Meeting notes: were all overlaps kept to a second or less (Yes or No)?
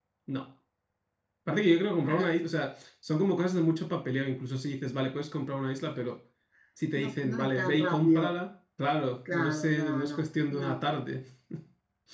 No